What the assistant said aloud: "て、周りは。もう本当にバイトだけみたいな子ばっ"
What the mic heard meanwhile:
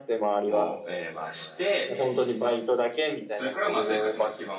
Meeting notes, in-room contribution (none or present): present